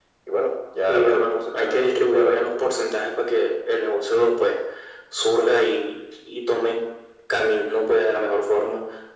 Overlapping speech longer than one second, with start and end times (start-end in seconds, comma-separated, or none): 0.9-2.8